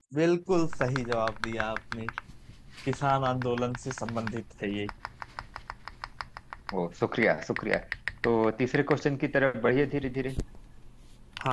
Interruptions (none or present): none